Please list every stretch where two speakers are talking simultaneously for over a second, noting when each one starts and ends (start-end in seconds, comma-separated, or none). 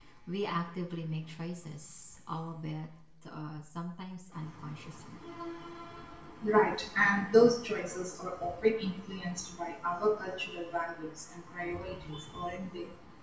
none